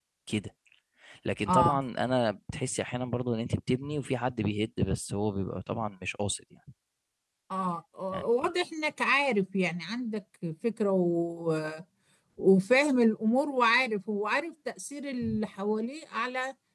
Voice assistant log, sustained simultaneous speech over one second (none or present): none